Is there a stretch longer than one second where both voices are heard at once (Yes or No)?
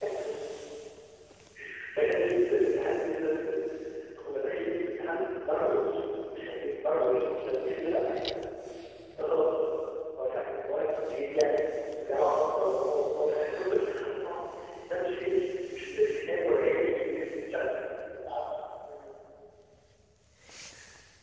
No